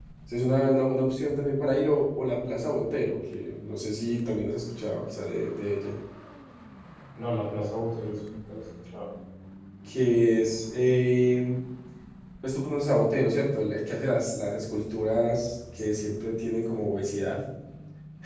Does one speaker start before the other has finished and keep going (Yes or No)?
No